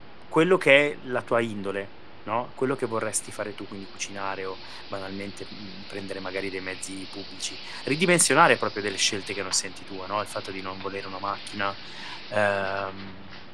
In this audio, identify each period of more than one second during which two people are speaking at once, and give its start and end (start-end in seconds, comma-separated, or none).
none